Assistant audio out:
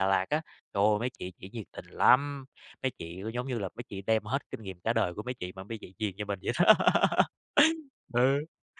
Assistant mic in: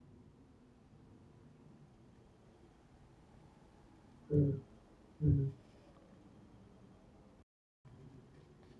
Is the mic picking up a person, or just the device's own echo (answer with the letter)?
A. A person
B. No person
A